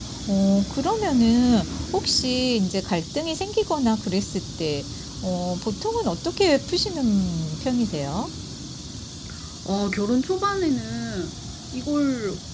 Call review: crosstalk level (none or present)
none